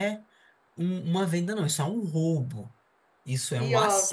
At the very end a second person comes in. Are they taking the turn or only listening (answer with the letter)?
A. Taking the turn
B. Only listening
B